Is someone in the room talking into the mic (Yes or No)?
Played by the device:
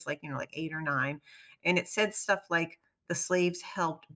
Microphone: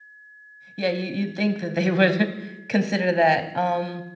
Yes